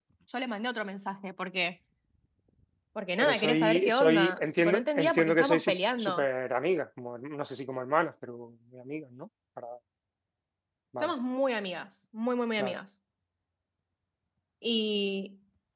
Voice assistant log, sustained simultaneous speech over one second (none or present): present